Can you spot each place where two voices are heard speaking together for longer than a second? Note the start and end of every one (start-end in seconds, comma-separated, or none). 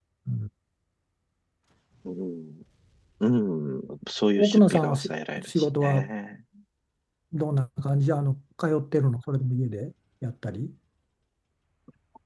4.4-6.1